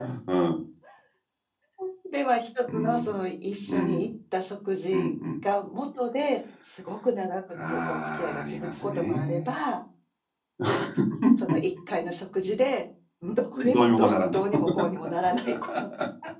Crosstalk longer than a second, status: present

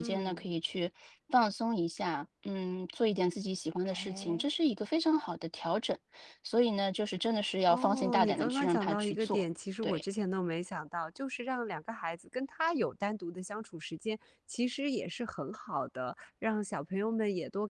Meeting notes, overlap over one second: present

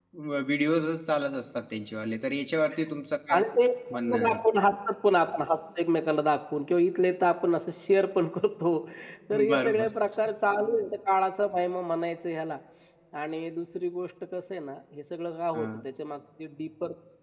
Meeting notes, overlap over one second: none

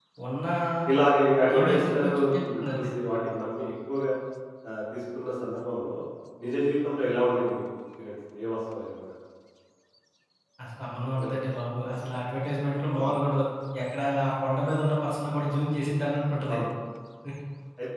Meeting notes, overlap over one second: present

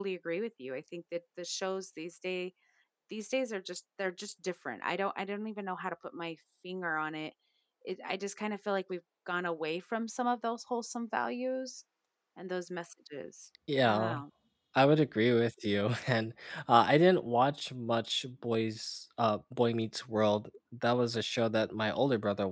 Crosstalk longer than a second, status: none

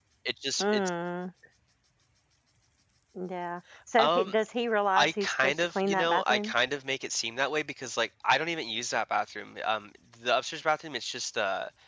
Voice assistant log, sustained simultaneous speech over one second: present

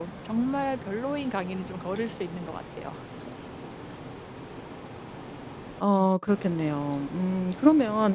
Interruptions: none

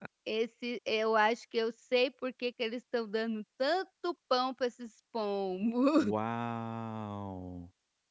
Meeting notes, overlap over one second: none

